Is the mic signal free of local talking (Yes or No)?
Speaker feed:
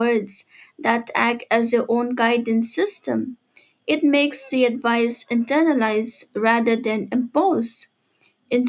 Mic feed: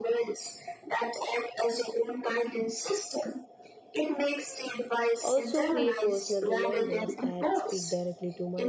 No